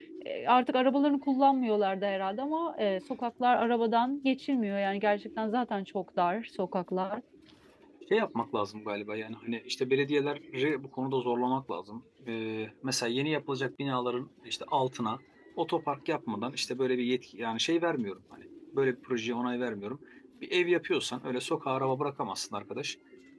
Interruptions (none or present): none